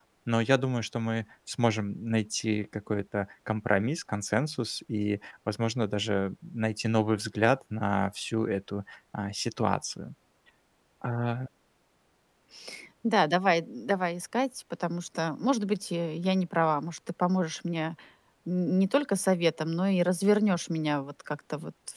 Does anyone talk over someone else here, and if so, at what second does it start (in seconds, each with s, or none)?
none